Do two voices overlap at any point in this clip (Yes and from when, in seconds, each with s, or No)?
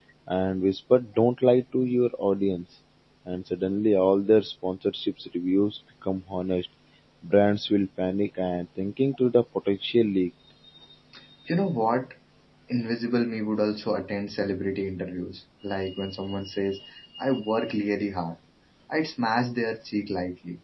No